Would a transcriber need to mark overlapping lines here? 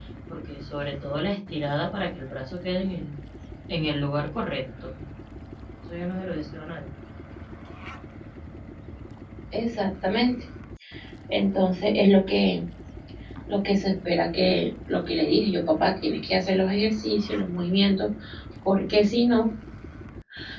No

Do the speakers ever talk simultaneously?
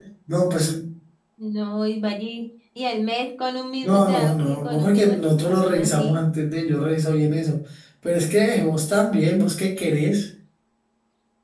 Yes, from 3.8 s

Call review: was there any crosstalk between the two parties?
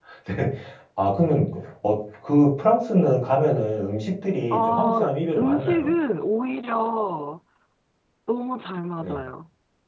Yes, from 4.5 s

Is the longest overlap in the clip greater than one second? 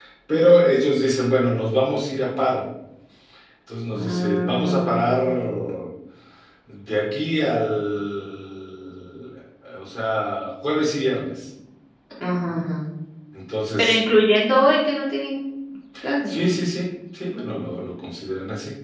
Yes, from 3.9 s

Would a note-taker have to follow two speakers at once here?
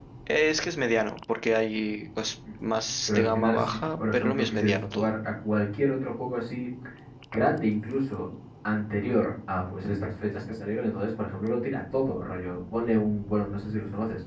Yes, from 3.1 s

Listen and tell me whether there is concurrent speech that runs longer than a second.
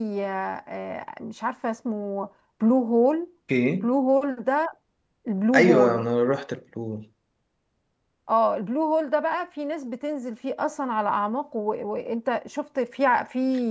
No

